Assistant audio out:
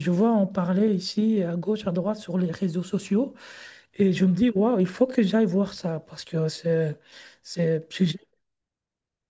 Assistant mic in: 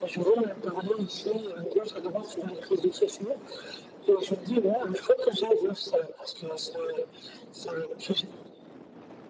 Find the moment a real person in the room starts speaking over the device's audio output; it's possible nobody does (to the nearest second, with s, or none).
none